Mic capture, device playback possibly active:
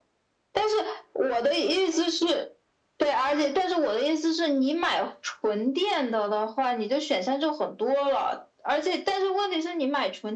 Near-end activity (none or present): none